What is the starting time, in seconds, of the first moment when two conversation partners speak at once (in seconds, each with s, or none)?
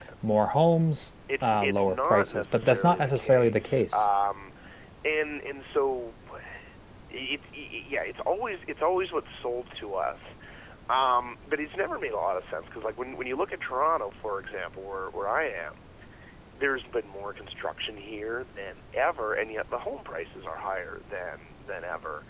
1.3 s